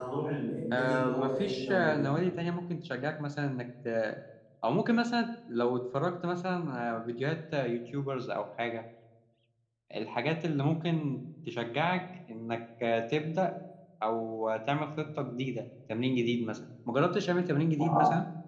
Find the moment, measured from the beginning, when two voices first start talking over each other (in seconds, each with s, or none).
0.7 s